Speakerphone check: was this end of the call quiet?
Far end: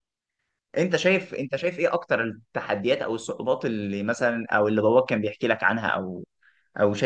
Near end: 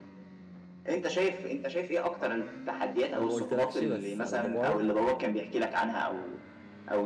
No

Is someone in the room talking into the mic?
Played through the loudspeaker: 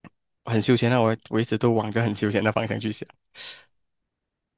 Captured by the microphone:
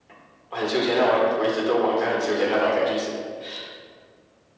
No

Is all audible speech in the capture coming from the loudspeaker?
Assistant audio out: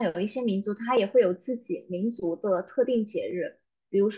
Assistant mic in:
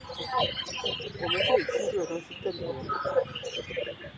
No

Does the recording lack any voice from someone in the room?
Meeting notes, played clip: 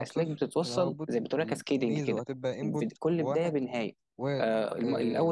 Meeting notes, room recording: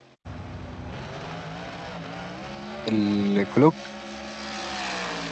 No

